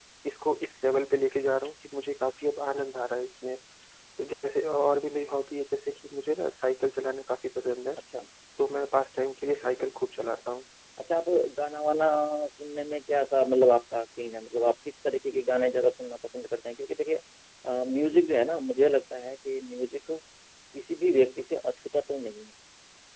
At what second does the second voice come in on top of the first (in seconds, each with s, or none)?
none